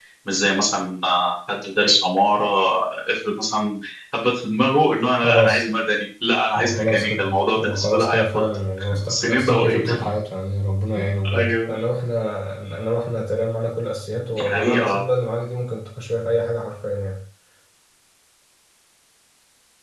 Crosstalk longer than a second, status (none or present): present